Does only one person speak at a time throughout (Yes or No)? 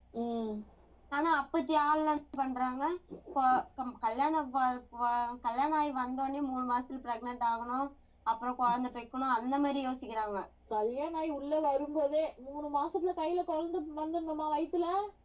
Yes